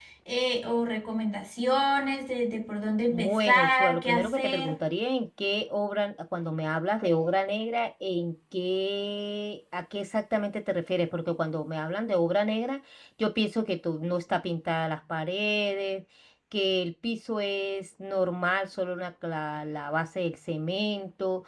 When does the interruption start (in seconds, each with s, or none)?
3.1 s